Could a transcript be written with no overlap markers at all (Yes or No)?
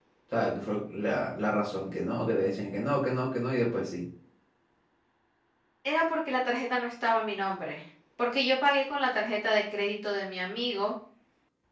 Yes